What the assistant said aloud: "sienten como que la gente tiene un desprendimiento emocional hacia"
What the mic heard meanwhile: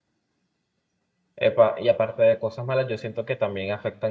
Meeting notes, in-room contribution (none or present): present